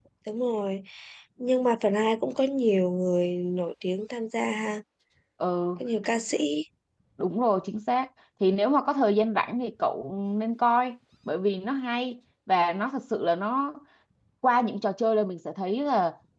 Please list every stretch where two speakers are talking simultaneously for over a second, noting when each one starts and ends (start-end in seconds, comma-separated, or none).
none